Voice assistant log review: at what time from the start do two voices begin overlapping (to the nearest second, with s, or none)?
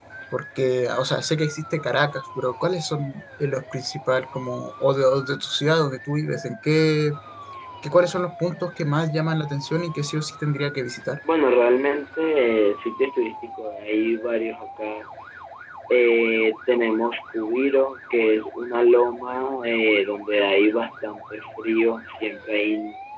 none